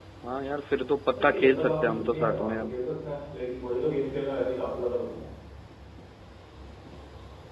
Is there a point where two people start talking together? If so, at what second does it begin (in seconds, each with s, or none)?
1.1 s